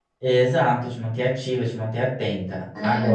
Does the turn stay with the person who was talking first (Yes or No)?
Yes